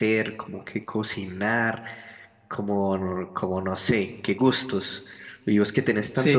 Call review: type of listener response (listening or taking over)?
listening